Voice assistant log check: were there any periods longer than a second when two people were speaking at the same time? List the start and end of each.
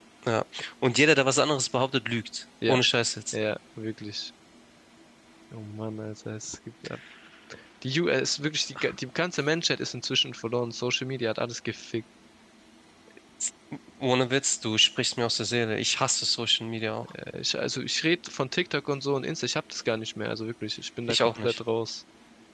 none

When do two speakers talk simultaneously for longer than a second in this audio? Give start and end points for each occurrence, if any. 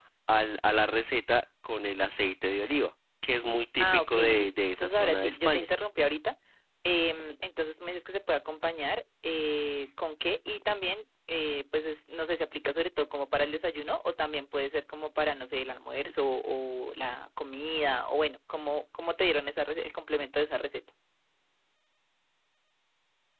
3.8-5.7

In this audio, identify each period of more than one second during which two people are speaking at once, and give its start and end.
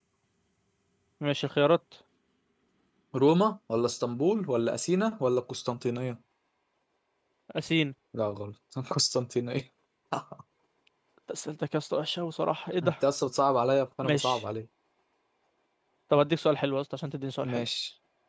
none

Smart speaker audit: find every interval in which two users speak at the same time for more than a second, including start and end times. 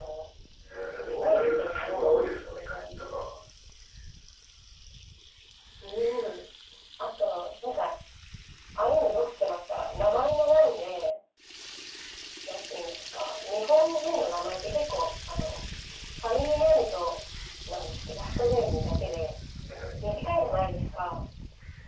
0.9-2.1

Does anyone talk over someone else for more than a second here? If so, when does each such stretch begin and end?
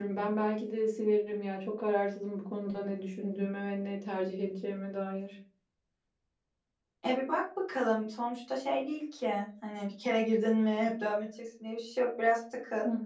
none

